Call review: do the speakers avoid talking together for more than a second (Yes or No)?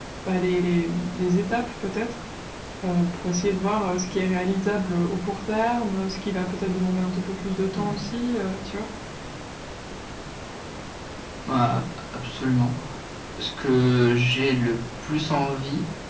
Yes